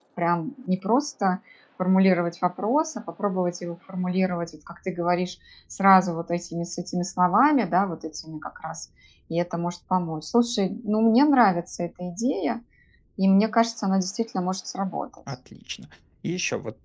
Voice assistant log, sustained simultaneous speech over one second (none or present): none